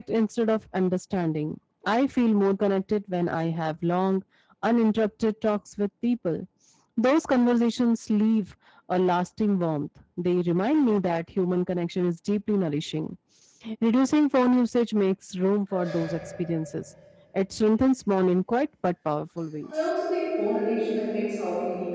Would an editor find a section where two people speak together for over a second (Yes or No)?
No